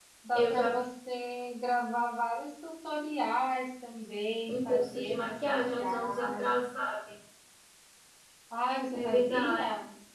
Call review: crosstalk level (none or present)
present